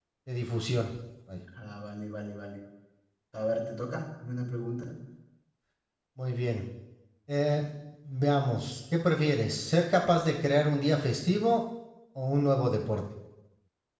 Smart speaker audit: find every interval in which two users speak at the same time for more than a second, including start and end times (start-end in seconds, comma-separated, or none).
none